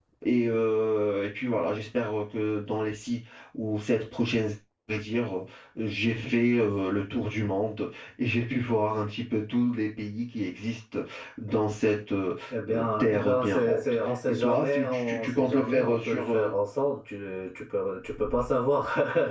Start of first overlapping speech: 12 s

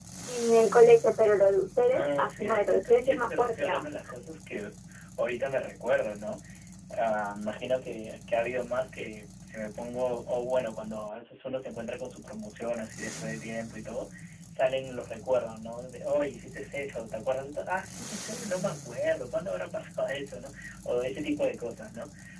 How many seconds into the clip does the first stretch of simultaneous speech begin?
2 s

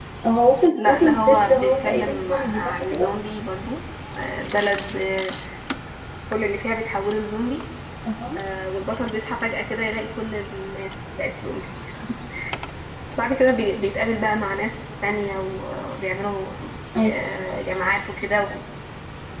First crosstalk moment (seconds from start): 1 s

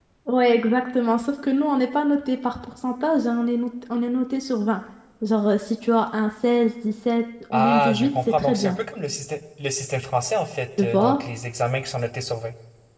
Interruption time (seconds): 8 s

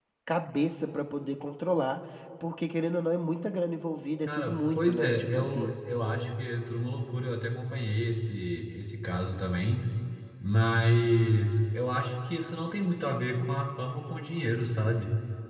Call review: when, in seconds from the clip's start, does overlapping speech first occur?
4 s

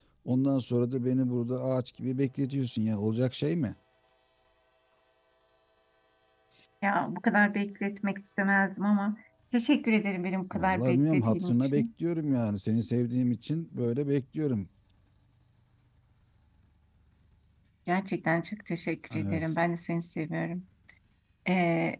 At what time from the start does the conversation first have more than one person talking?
11 s

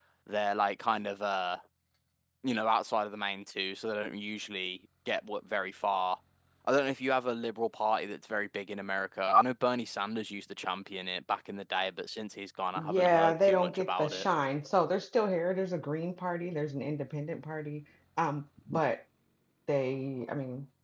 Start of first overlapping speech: 13 s

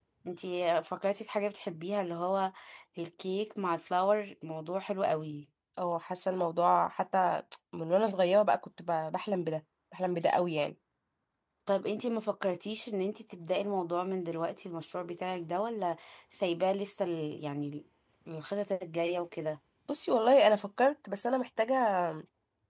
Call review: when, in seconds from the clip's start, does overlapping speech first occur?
none

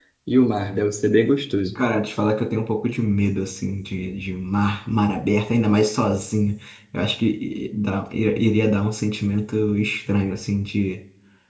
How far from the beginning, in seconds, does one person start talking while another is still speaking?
none

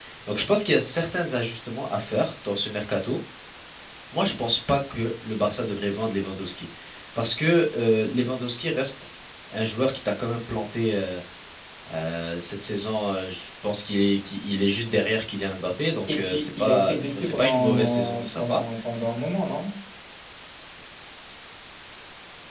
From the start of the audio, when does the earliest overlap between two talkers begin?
16 s

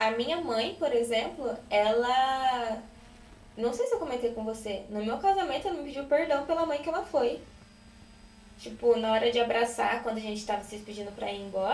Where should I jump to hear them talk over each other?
none

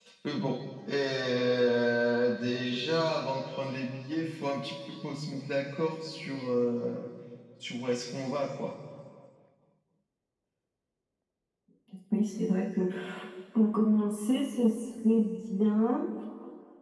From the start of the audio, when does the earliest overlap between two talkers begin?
none

